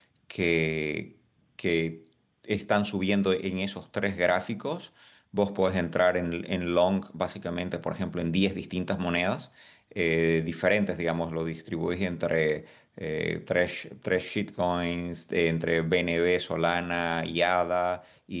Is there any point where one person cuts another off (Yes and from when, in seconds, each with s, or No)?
No